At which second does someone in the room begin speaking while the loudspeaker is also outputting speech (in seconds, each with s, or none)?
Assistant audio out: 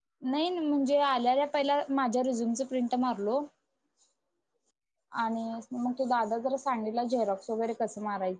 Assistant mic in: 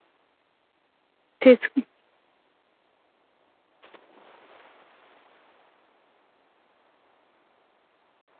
1.4 s